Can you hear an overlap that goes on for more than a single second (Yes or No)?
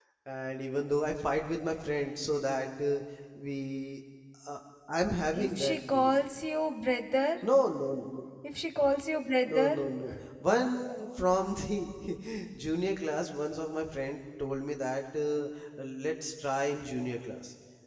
No